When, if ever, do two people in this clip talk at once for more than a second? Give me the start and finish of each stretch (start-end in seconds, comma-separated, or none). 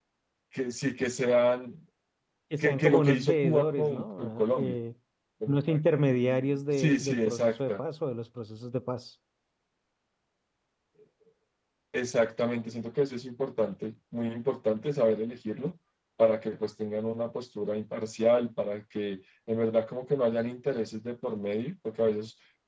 2.6-4.8, 6.1-7.8